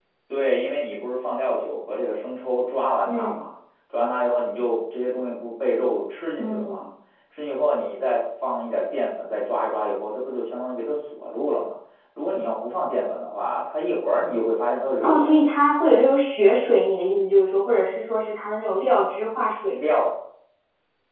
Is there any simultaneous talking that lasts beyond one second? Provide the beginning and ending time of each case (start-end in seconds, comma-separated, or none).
none